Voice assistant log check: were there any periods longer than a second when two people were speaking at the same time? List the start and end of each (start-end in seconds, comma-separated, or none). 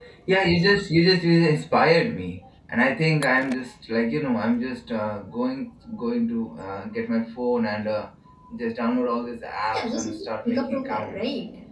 9.7-11.2